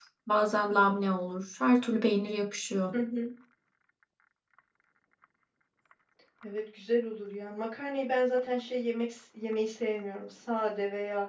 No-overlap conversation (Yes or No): Yes